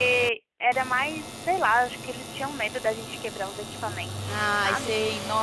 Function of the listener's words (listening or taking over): taking over